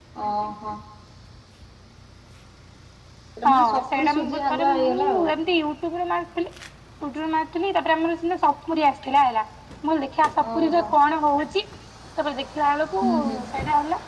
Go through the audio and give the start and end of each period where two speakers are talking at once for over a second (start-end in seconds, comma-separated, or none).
3.5-5.3